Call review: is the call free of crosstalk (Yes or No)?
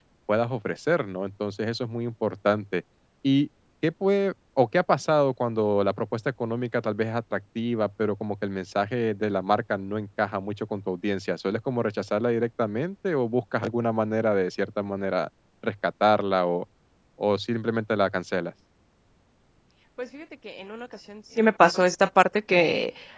Yes